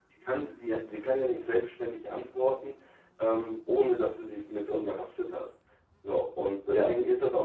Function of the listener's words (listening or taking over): listening